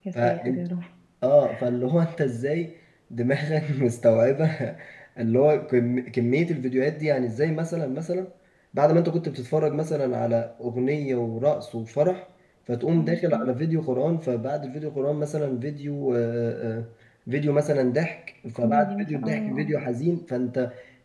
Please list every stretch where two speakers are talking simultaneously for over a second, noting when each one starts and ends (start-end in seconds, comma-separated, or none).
18.5-19.8